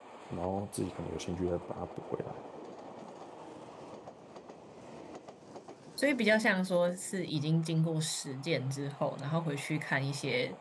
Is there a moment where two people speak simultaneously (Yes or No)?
No